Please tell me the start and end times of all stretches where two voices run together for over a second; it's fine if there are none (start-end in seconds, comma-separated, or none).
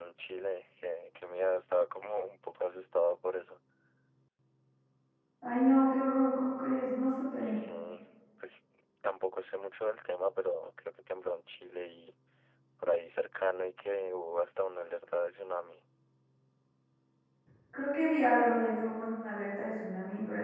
none